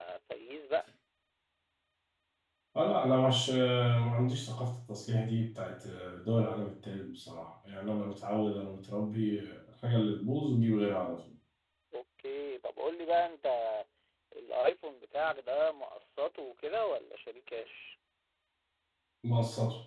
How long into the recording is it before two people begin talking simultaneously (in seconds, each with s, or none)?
none